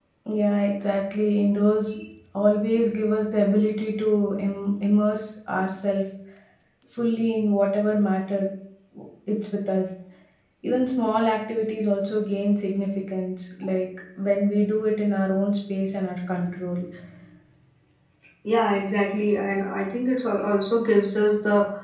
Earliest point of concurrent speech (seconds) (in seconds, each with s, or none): none